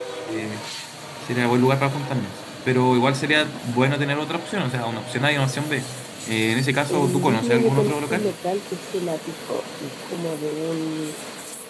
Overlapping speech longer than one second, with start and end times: 6.9-8.3

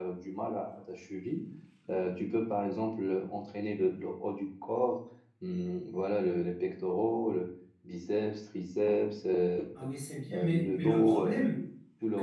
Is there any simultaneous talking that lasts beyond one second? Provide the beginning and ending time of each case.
10.3-11.6

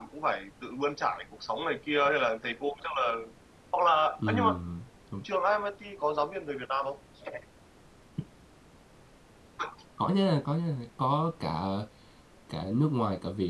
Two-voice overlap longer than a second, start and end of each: none

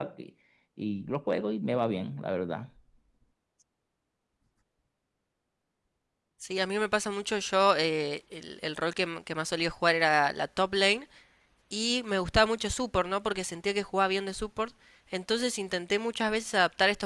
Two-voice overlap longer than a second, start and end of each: none

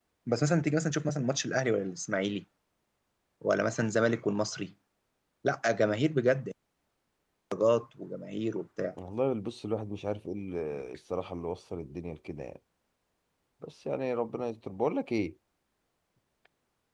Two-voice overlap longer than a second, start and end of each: none

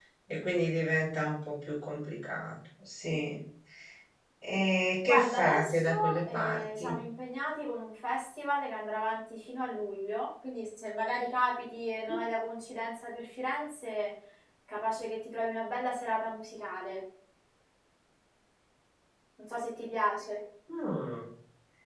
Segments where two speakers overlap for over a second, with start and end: 5.1-6.9

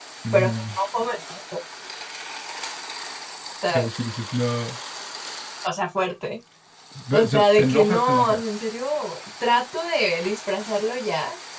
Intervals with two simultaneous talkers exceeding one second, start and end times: 7.1-8.4

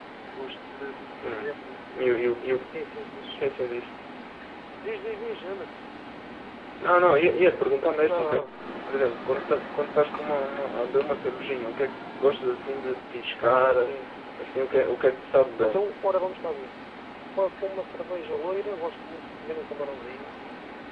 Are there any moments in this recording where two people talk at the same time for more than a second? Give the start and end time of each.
none

